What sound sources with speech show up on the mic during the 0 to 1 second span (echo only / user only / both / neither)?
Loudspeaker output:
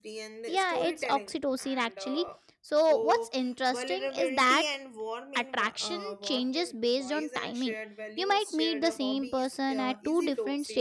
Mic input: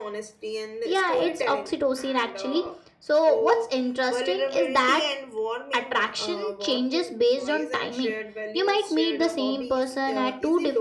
echo only